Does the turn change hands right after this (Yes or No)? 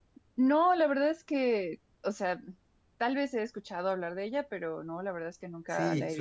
Yes